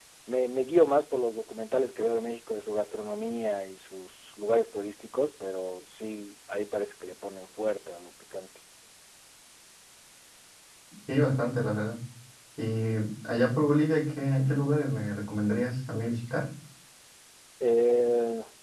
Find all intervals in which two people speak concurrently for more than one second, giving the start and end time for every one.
none

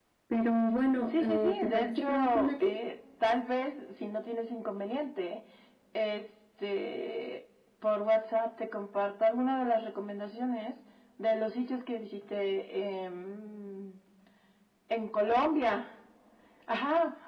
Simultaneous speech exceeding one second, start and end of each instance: 1.1-2.7

